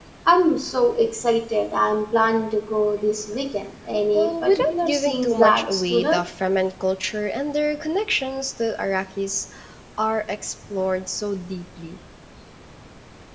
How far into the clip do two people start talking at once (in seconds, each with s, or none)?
4.1 s